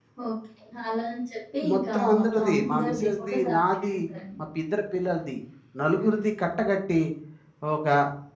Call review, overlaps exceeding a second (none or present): present